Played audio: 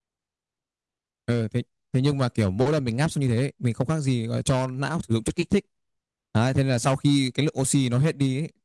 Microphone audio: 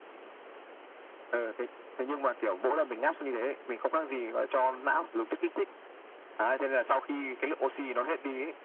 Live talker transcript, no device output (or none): none